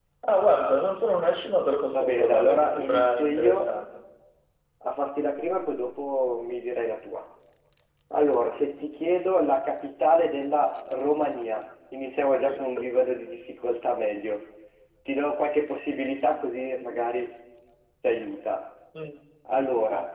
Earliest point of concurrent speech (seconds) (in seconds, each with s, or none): 1.9 s